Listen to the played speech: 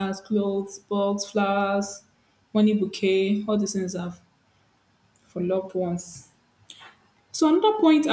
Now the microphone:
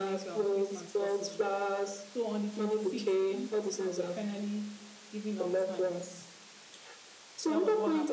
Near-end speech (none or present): present